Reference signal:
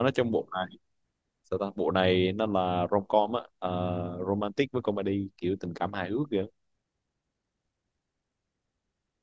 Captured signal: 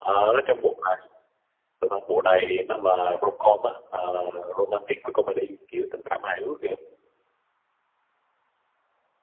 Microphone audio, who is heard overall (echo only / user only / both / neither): echo only